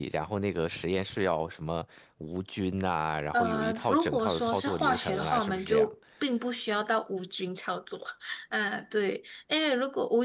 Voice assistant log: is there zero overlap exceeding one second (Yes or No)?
No